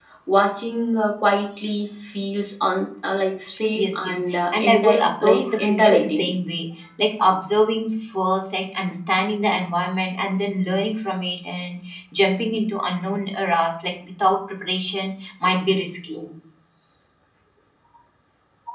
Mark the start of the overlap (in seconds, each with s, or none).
3.7 s